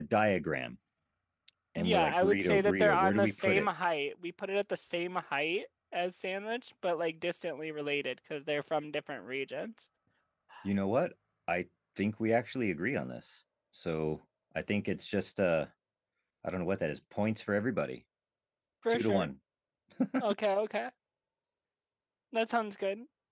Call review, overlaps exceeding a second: present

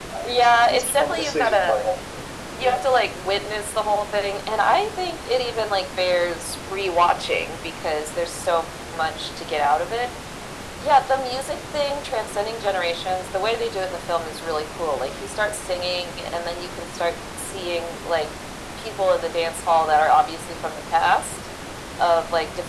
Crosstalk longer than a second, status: present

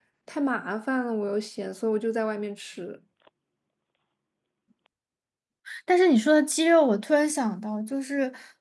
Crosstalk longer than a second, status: none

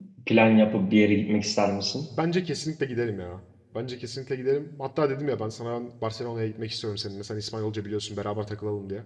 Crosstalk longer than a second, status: none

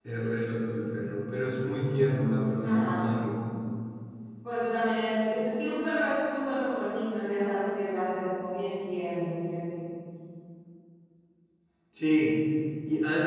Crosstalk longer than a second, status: none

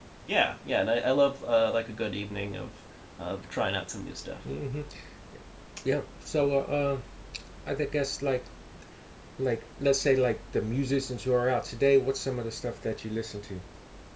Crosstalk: none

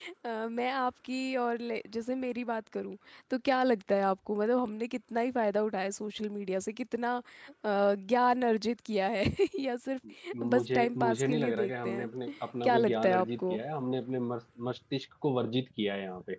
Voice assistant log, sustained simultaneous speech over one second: present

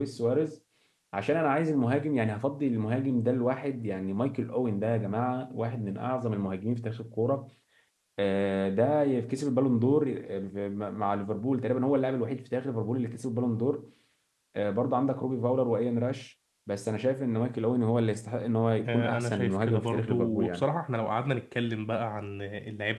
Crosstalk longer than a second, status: present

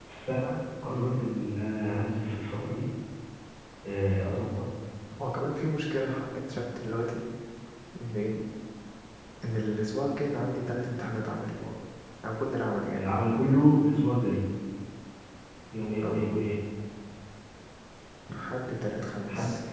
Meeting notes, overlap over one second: none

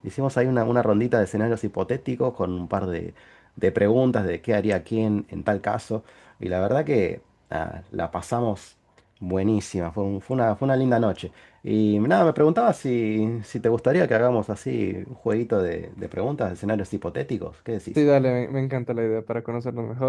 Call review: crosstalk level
none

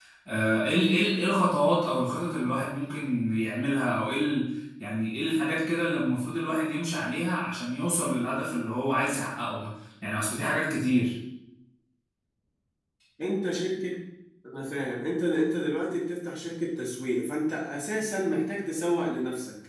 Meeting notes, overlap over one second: none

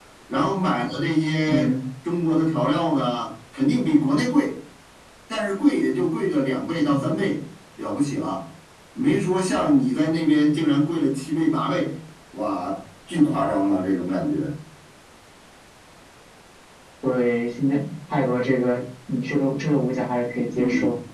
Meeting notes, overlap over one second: none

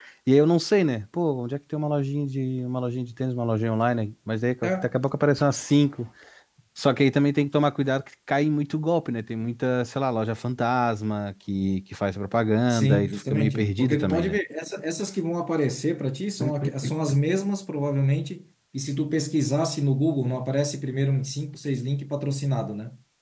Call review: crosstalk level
present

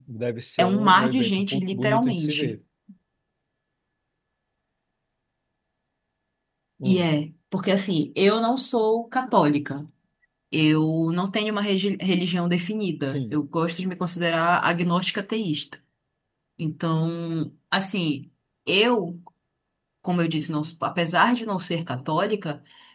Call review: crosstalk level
present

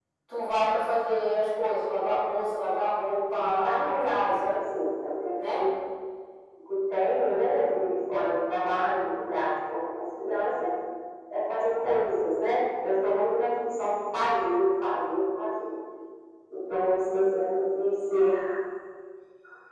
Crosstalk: present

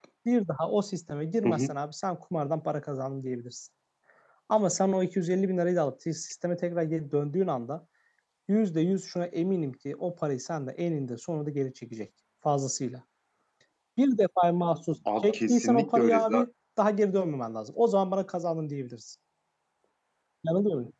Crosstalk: present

